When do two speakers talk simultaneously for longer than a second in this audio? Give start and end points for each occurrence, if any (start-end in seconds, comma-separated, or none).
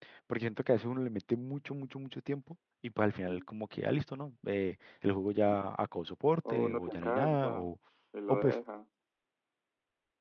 6.5-7.7